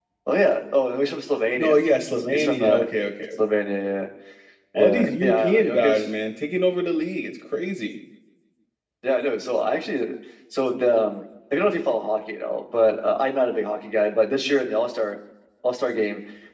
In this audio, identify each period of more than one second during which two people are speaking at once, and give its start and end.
4.8-6.1

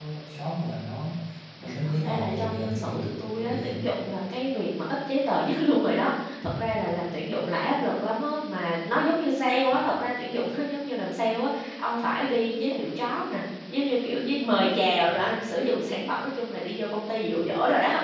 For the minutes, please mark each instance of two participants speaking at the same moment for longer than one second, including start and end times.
1.9-3.9

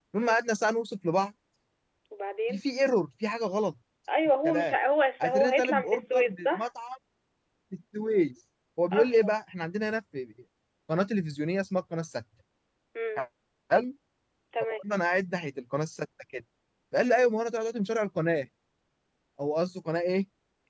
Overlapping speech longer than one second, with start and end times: 5.2-6.6

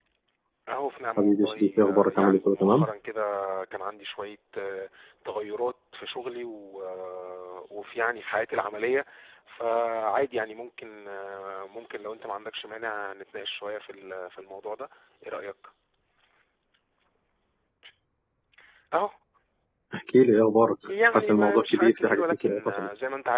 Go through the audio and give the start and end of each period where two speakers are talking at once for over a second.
1.2-2.9, 21.1-22.9

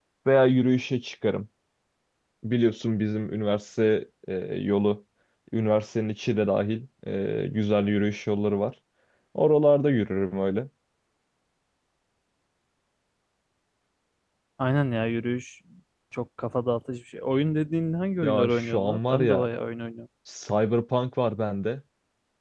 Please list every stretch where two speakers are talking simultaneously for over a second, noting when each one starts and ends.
18.2-19.5

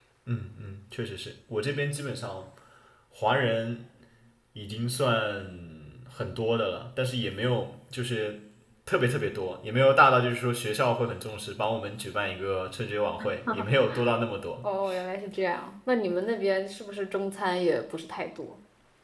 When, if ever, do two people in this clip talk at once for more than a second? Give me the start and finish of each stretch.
none

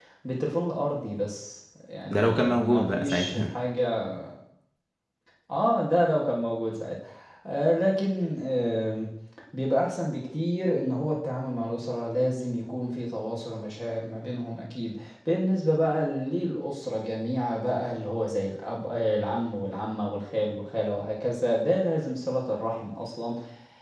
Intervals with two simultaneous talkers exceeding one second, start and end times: 2.1-3.5

